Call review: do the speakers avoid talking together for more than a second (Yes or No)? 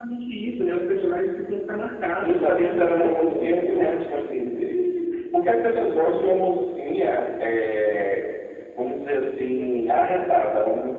No